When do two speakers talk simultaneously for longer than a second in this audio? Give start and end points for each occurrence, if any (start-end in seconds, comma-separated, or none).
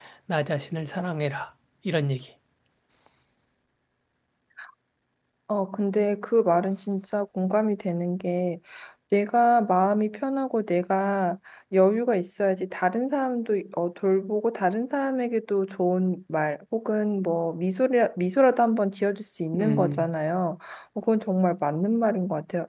none